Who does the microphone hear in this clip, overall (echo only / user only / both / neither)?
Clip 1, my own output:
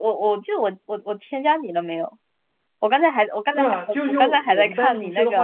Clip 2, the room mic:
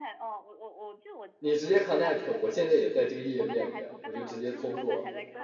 both